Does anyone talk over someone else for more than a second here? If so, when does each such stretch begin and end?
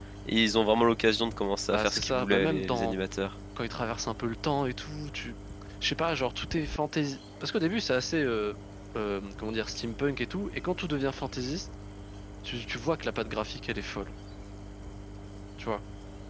1.7-3.0

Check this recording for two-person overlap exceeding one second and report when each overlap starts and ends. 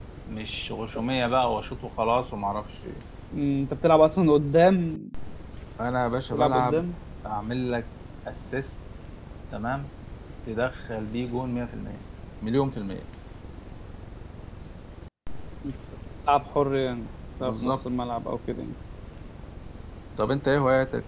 none

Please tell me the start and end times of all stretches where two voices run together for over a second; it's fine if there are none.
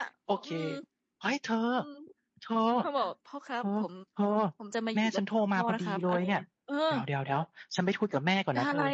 5.0-6.4

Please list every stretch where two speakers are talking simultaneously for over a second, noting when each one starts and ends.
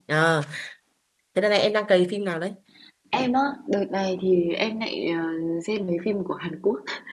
none

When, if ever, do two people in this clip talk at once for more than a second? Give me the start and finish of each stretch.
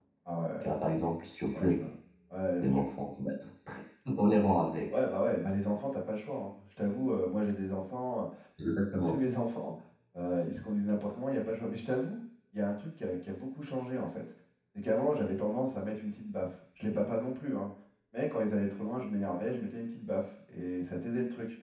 none

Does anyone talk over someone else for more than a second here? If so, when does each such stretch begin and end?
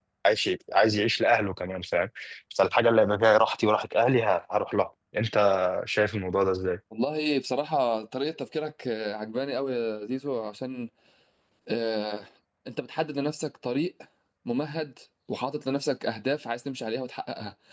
none

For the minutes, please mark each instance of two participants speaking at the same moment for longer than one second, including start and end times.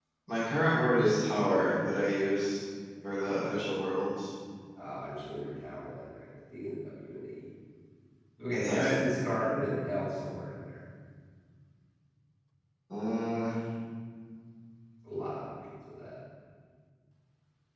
none

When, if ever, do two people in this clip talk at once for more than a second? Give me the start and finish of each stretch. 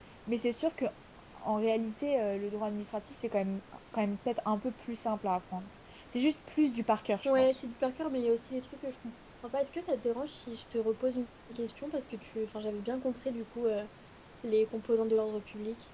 none

